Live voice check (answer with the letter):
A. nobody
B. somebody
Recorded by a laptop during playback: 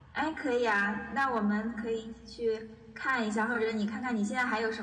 A